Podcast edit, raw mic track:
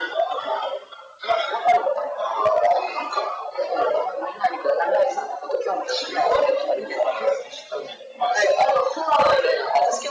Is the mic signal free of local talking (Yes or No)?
Yes